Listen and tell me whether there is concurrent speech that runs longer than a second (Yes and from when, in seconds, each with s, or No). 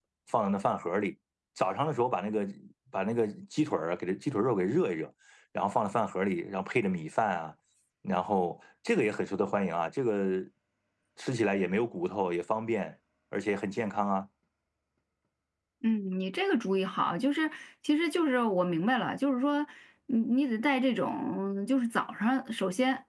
No